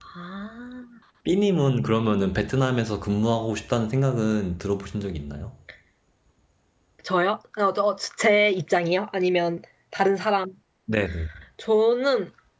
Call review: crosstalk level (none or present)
none